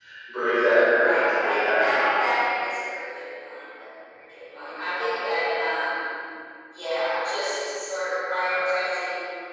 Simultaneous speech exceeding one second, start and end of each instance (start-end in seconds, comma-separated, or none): 1.0-2.2